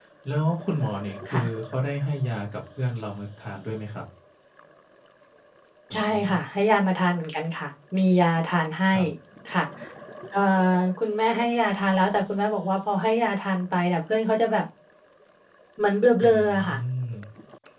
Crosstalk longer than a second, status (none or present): none